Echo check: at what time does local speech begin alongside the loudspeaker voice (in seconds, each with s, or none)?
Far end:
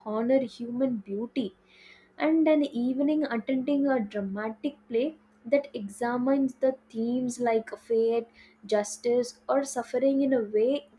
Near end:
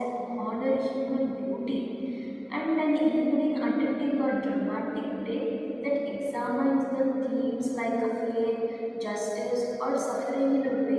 none